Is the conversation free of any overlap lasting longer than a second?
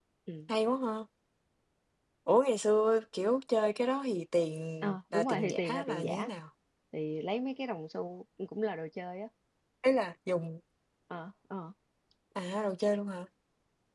No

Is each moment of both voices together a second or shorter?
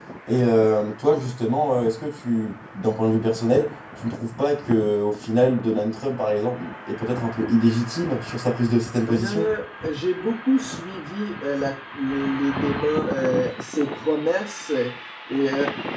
Yes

